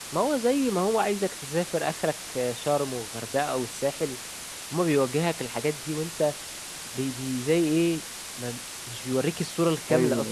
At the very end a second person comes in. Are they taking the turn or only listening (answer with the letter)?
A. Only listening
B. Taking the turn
B